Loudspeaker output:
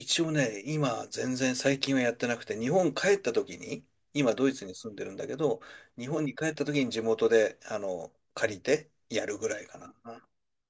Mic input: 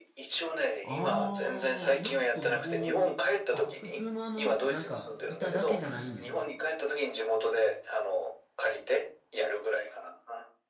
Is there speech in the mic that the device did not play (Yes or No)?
Yes